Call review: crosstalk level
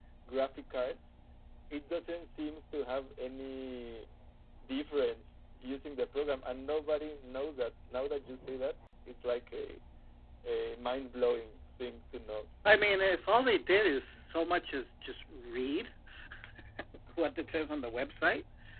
none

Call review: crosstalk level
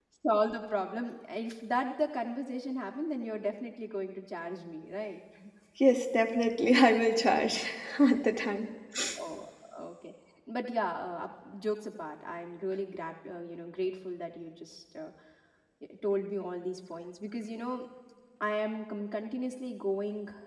none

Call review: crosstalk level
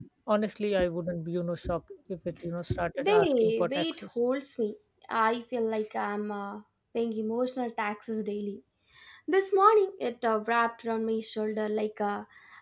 present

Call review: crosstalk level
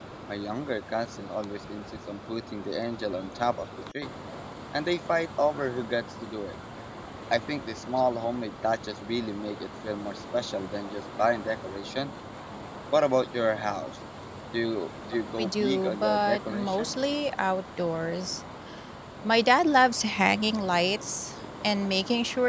present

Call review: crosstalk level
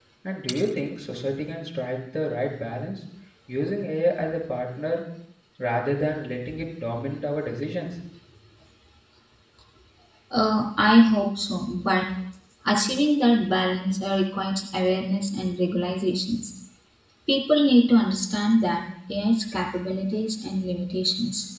none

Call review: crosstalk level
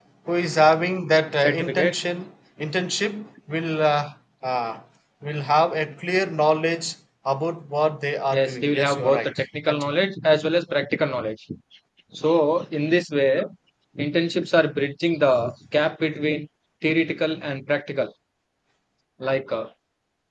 present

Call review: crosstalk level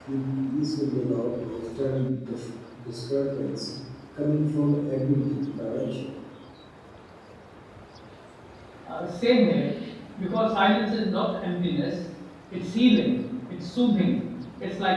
none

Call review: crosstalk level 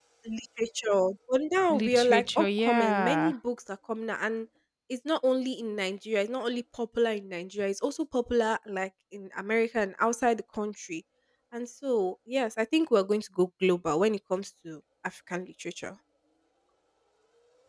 present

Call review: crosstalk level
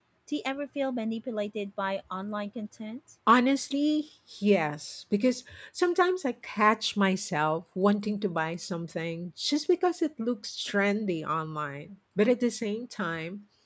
none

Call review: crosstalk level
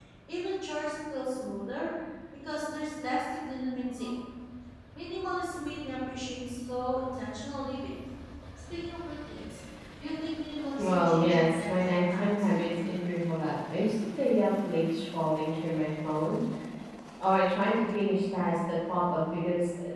present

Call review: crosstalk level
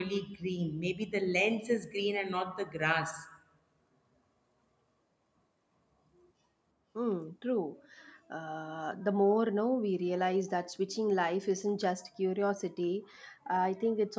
none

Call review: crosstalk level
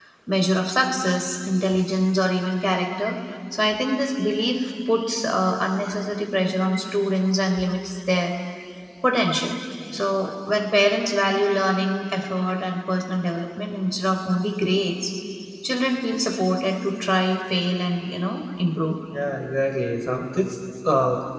none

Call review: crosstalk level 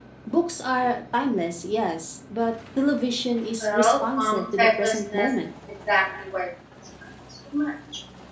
present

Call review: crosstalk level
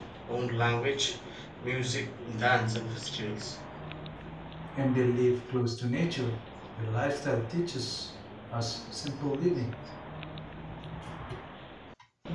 none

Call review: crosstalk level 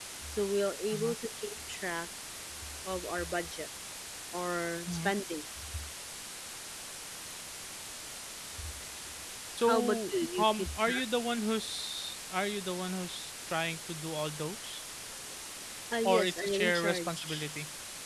present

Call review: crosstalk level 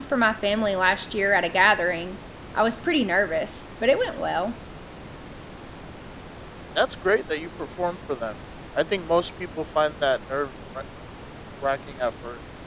none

